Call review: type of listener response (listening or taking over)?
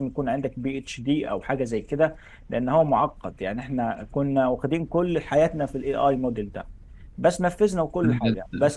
listening